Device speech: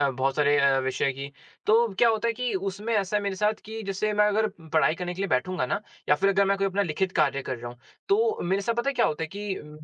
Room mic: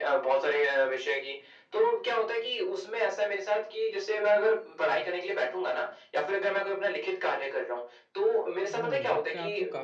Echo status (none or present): present